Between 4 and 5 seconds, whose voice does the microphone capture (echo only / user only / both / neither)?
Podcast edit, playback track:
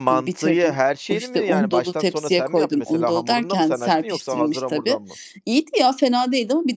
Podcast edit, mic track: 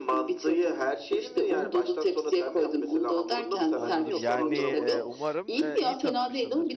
both